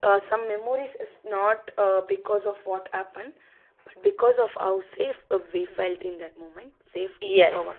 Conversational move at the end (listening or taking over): taking over